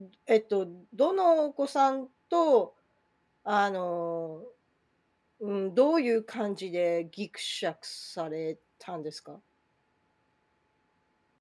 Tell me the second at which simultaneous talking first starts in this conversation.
none

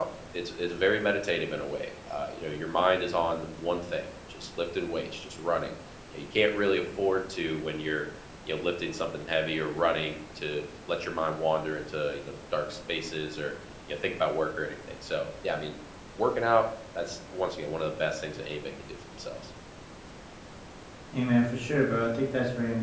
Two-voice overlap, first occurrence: none

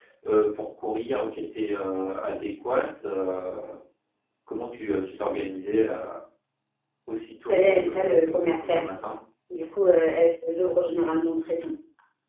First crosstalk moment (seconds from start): 7.5 s

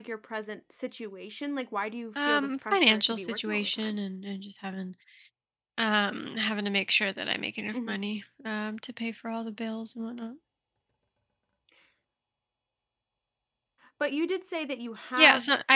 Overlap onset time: 2.1 s

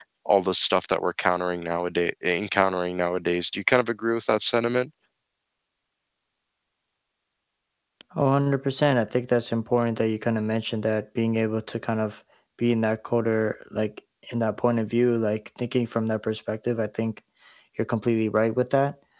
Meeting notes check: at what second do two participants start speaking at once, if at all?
none

